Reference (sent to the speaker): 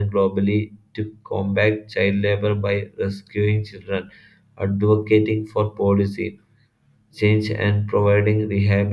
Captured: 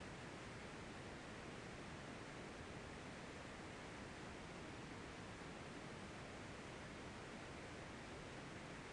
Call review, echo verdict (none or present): none